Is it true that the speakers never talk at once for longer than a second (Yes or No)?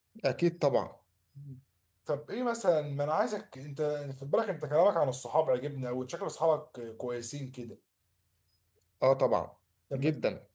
Yes